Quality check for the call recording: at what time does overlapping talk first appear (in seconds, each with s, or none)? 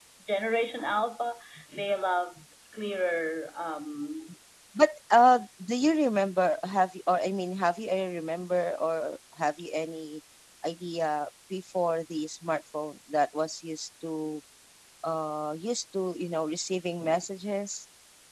none